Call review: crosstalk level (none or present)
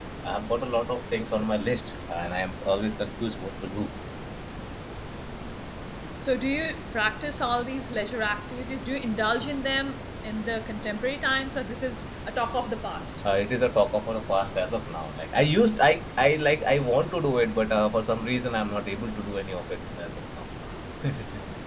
none